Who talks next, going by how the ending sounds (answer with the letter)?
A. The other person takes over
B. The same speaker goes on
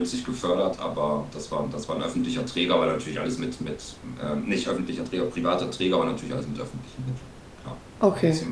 B